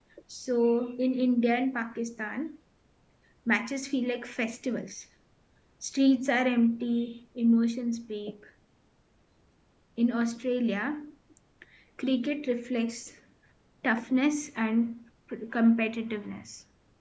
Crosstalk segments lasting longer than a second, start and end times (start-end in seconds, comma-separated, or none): none